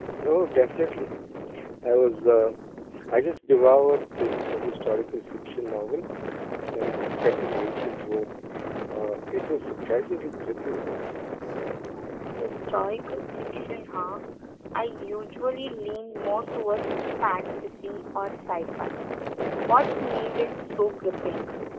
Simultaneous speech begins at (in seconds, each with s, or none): none